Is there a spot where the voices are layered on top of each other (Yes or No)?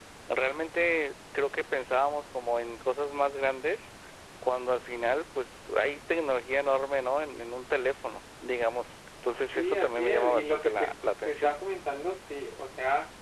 Yes